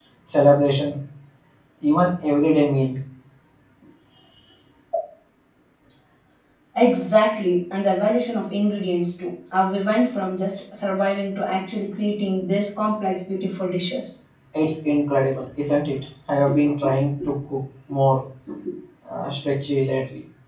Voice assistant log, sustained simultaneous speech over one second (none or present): none